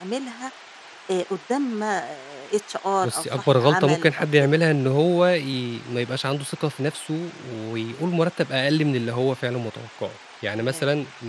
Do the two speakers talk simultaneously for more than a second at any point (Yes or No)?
Yes